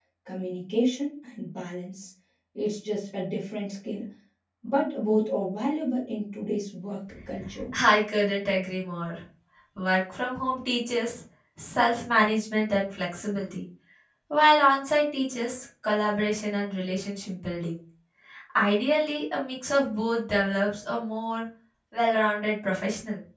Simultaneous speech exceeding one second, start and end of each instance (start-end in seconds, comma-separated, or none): none